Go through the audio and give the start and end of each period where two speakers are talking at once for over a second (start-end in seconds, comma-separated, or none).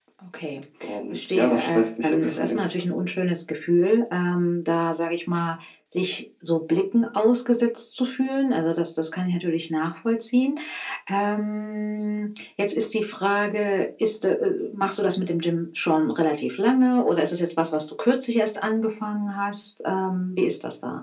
1.1-2.7